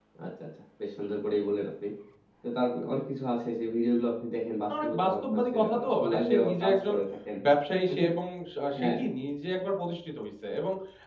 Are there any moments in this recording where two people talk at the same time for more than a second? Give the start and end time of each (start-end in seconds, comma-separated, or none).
4.7-7.0